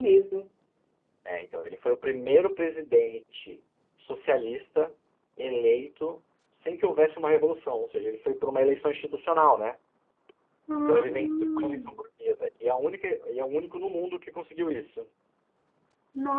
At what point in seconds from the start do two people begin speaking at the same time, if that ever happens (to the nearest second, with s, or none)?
11 s